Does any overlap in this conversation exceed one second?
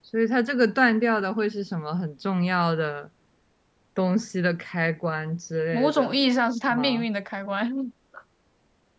No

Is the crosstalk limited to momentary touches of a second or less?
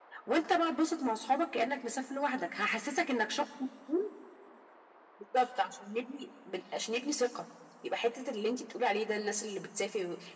Yes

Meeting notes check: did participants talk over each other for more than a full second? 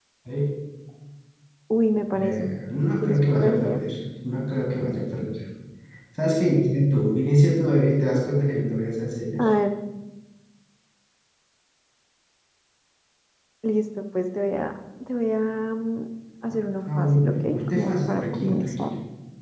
Yes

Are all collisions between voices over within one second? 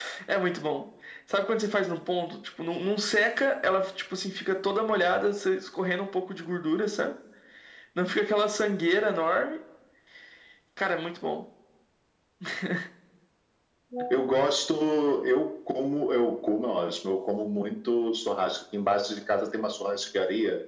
Yes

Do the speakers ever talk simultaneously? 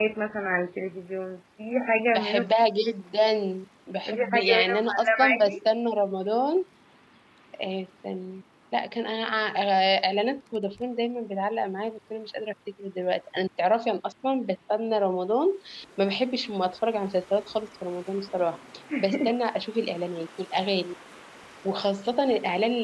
Yes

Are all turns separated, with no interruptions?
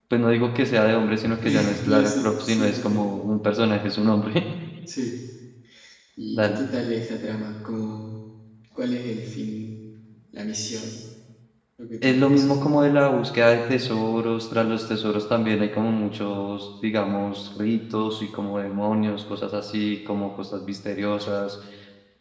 No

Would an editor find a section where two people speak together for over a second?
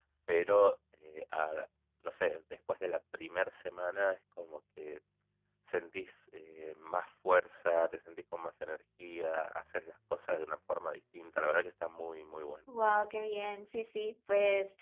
No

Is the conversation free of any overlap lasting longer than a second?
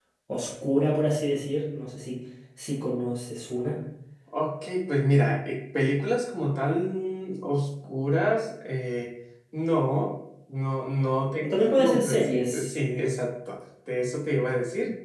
No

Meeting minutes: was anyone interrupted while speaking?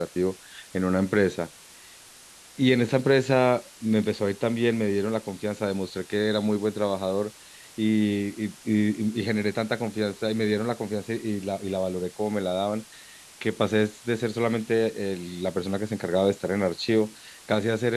No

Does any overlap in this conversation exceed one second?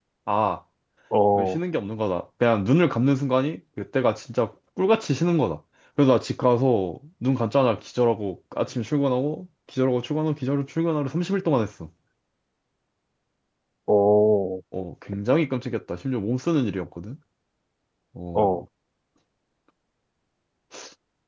No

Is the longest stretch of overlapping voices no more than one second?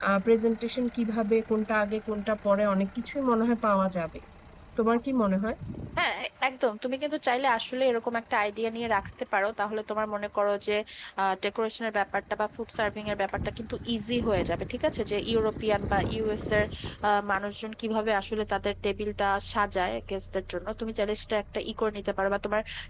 Yes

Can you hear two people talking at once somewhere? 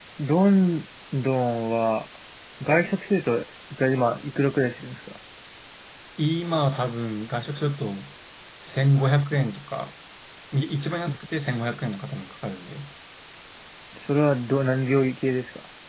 No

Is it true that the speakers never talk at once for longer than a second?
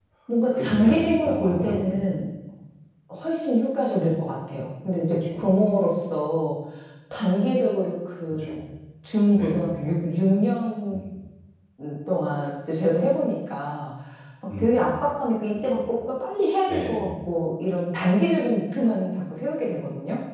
No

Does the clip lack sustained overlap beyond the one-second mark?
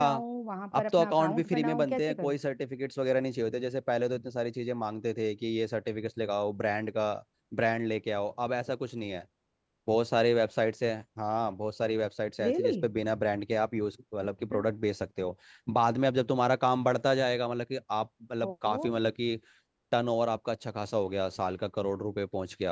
No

